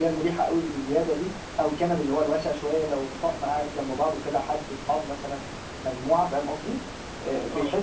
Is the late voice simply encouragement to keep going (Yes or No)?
Yes